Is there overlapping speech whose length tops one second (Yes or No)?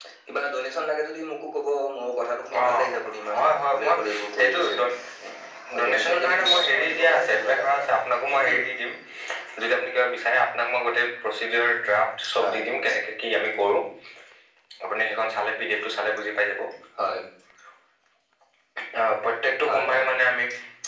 Yes